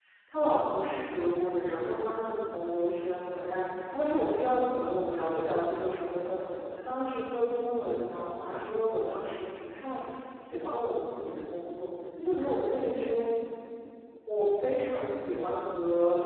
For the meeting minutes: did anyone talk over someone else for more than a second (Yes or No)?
No